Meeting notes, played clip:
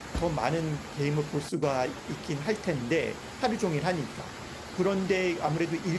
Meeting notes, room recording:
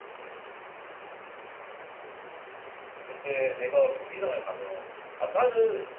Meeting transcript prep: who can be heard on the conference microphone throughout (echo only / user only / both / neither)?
user only